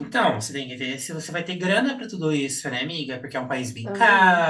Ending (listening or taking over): listening